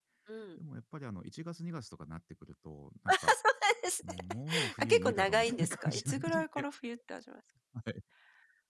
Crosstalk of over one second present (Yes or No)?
Yes